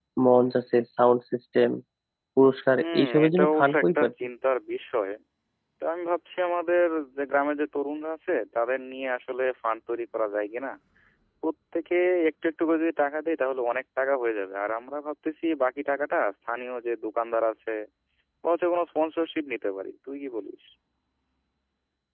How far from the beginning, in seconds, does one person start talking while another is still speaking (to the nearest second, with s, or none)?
3 s